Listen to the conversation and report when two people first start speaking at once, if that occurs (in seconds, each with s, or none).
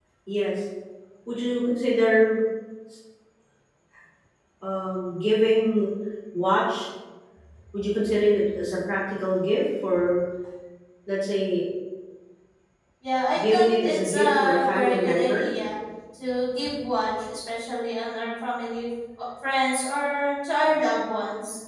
13.4 s